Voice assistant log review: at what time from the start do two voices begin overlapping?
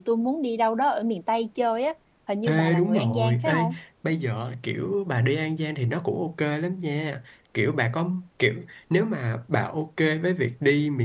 2.4 s

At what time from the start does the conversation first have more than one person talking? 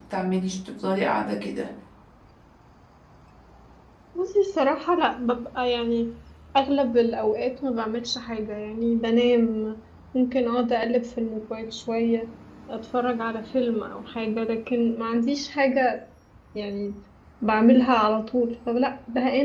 none

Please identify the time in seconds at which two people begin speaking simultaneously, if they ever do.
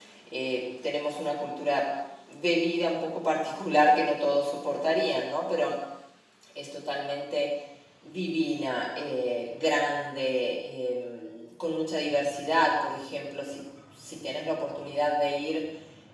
none

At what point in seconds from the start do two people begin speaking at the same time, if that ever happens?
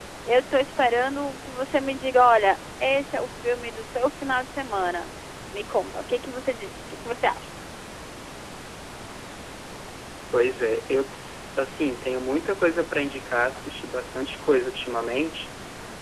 none

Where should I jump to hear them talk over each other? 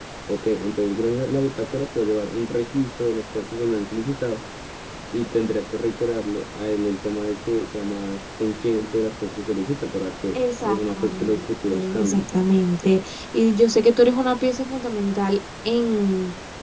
10.3 s

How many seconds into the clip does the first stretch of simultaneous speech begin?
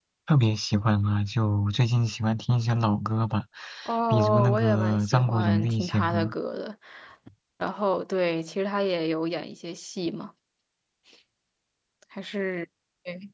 4.1 s

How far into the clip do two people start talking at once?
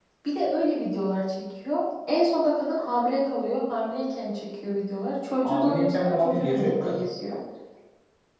5.4 s

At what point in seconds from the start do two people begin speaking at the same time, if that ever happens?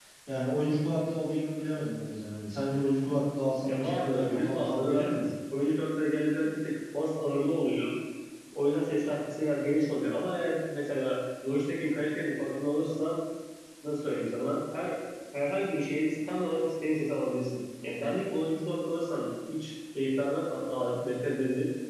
3.6 s

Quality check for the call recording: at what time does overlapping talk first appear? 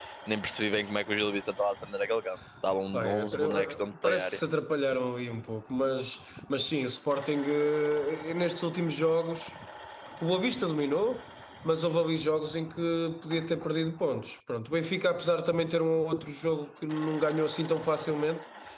2.9 s

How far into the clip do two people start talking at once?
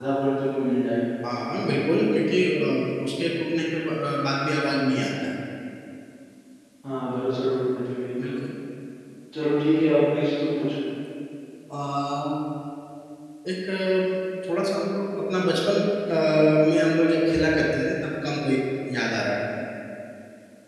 none

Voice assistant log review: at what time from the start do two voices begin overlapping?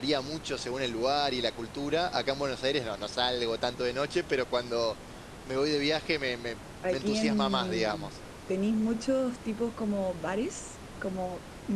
6.8 s

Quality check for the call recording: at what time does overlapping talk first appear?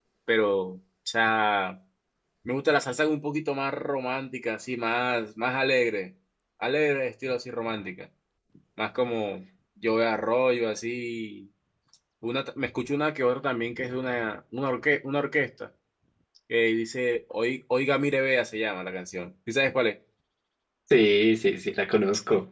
none

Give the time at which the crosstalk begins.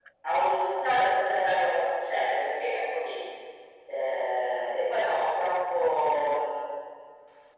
none

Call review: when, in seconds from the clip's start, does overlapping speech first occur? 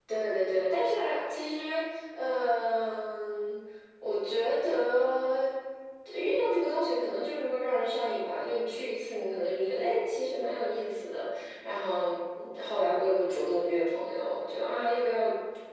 none

